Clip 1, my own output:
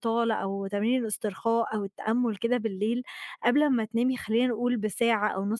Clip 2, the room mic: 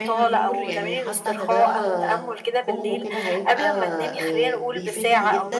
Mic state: both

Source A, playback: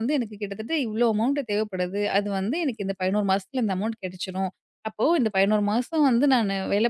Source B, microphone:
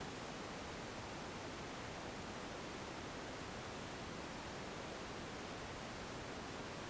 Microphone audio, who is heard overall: neither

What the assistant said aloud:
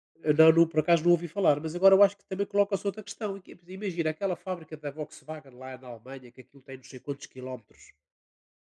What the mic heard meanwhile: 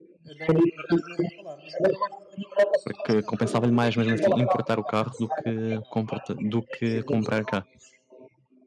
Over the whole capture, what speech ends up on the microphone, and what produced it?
both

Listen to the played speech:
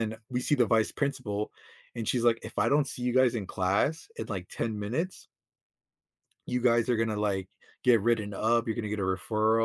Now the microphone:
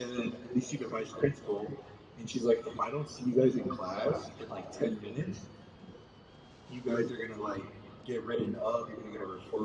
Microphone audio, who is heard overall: echo only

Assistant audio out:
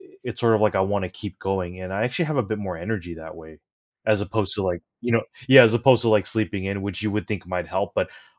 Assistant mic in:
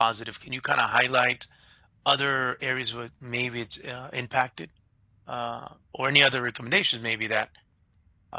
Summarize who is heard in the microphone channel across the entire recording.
user only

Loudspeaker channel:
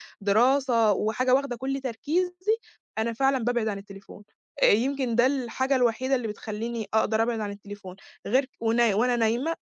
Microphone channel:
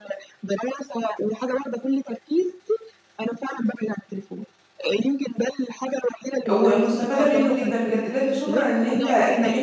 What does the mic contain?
both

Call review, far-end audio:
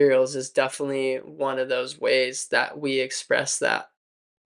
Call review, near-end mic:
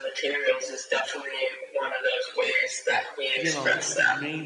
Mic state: both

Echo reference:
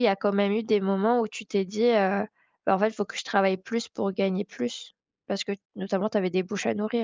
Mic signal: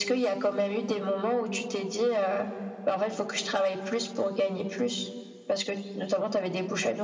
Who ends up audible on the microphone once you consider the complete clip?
echo only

